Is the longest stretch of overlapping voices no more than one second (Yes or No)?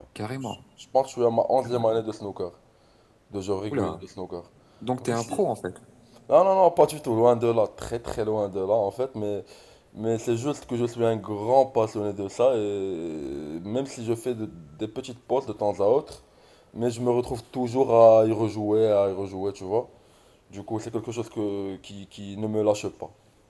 Yes